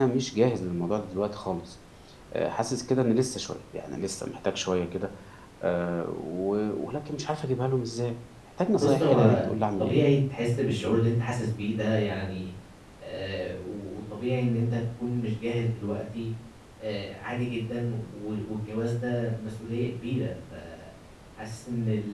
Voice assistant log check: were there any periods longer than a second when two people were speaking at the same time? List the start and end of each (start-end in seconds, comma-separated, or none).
8.7-10.0